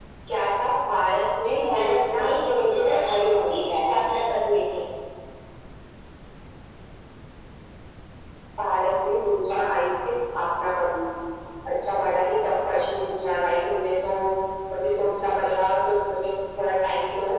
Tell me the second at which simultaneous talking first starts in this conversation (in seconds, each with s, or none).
1.6 s